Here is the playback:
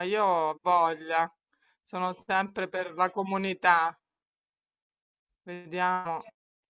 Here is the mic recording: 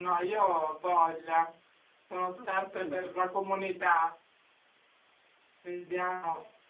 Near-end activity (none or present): present